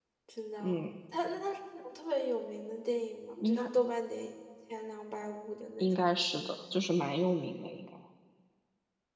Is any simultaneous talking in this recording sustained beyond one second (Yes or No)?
No